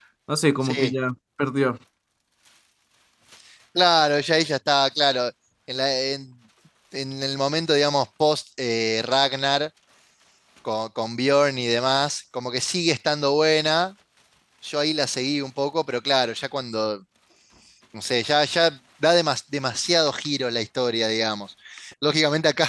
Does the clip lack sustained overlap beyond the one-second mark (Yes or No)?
Yes